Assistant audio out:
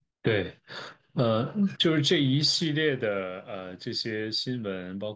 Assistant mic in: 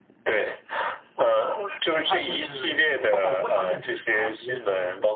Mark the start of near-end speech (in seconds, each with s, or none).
1.9 s